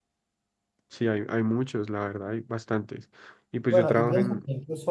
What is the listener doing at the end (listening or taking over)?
taking over